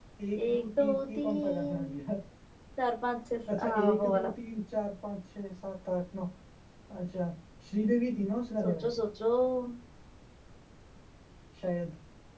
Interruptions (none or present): present